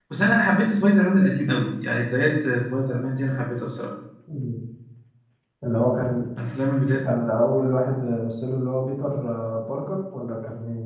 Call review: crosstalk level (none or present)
none